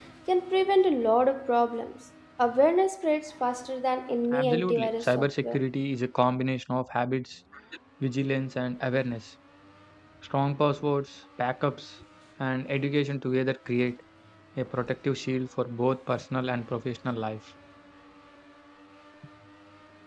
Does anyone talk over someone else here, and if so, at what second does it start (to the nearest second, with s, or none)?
4 s